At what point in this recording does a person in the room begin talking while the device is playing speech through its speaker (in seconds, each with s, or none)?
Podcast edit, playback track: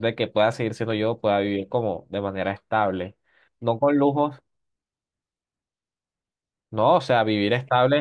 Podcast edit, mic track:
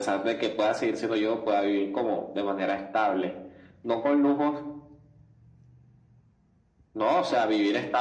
none